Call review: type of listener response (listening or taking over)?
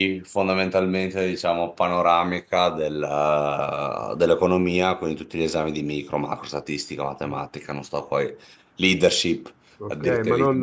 taking over